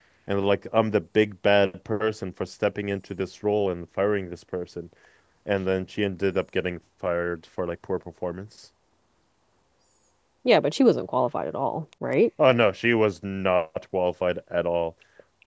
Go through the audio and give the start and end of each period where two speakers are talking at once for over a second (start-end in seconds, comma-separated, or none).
none